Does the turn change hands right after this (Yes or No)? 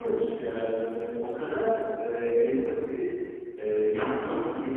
No